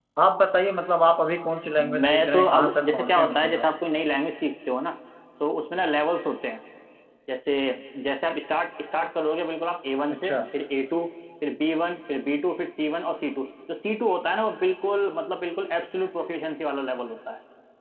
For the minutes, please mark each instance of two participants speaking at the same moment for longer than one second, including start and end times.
2.0-3.6

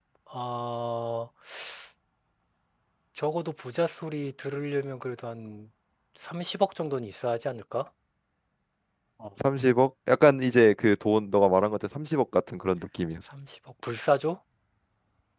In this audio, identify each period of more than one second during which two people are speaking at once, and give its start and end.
none

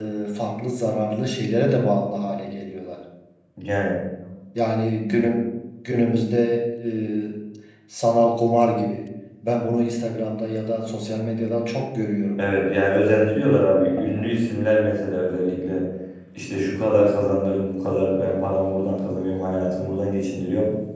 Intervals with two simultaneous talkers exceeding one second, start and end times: none

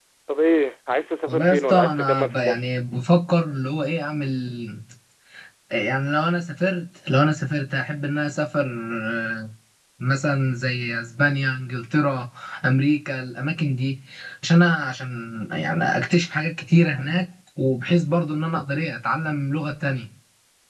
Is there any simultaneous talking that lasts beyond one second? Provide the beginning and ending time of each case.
1.3-2.7

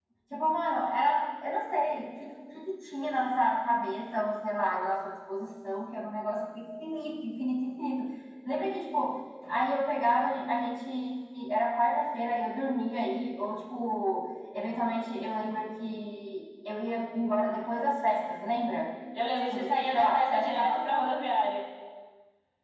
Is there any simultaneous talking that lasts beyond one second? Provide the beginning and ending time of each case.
19.5-20.8

